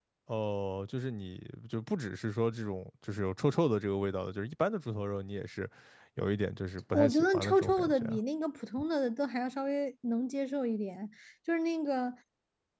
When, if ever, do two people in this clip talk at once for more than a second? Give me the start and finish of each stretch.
6.9-8.2

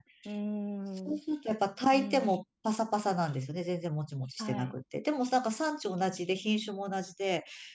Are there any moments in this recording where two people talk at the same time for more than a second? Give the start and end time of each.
none

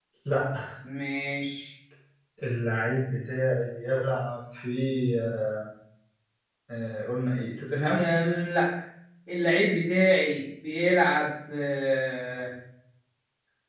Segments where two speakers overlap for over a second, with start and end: none

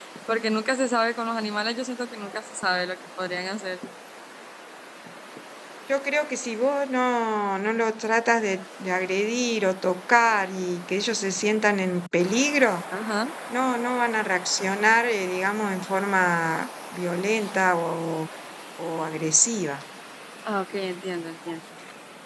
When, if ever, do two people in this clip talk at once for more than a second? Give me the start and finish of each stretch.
none

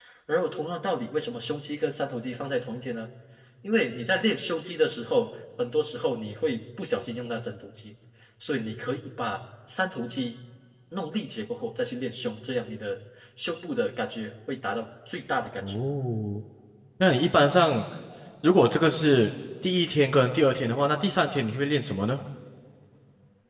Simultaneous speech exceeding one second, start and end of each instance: none

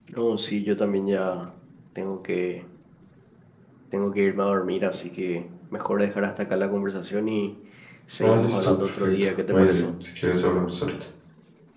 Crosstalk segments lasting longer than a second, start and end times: 8.2-9.8

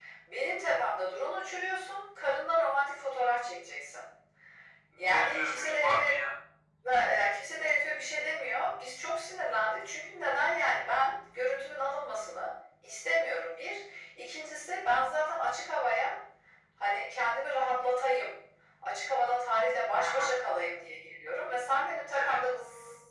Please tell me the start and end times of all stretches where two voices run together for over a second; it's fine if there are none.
5.0-6.2

